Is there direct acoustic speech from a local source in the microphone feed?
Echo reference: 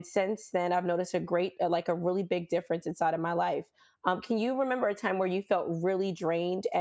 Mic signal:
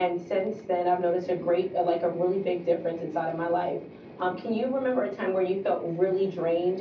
No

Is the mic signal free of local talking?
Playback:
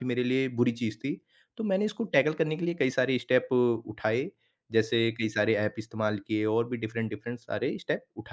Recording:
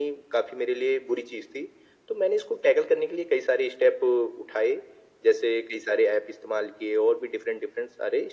Yes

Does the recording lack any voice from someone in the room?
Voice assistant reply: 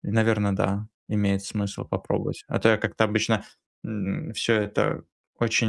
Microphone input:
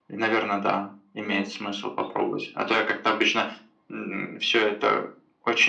No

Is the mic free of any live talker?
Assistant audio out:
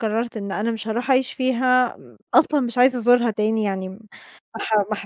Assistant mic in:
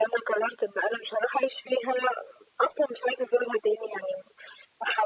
Yes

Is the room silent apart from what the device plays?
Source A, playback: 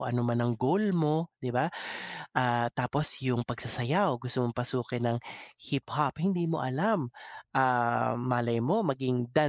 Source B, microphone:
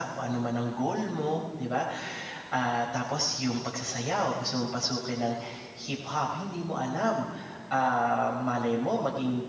Yes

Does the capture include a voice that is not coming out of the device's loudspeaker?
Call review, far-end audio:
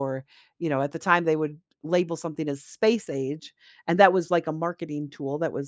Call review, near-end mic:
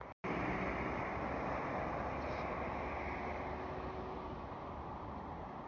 No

